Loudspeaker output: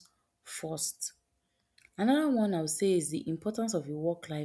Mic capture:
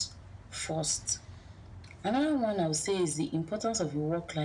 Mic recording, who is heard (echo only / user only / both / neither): echo only